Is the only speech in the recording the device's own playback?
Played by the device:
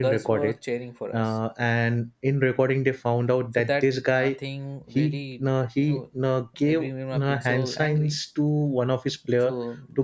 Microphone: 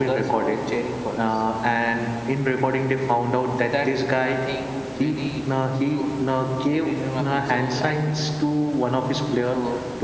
Yes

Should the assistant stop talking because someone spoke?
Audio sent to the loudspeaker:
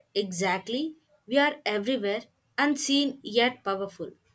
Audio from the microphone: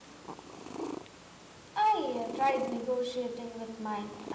Yes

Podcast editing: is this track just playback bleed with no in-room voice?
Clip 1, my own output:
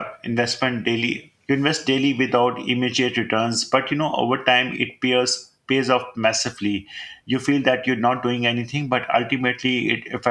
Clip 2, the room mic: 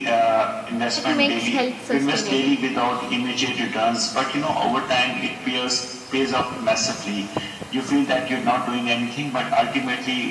No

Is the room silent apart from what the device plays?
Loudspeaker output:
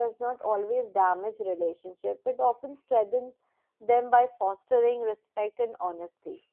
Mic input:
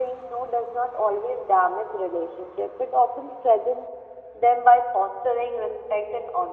Yes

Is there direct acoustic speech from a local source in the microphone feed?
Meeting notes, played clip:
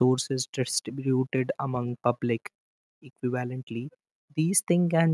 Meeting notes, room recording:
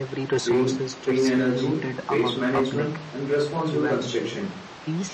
Yes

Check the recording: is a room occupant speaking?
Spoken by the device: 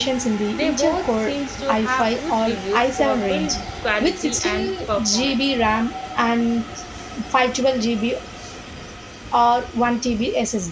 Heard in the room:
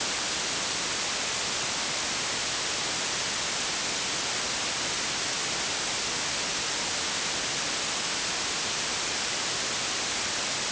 No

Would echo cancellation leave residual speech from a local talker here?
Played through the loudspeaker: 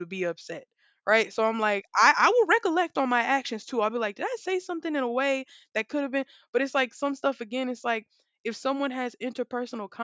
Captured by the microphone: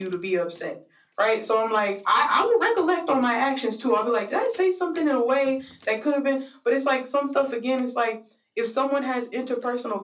No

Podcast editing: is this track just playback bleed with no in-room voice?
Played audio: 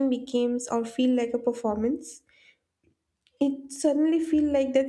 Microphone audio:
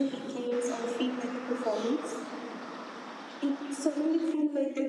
Yes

